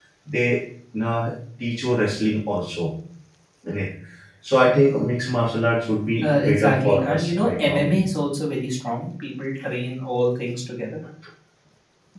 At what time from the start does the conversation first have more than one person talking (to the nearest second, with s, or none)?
6 s